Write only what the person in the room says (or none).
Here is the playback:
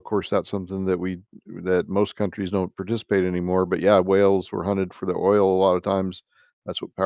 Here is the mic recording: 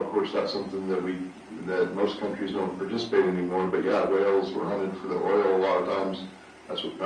none